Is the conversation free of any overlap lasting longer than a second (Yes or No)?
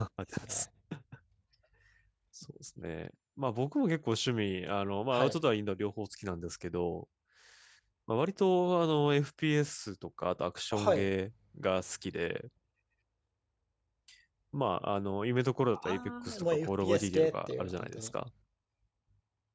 No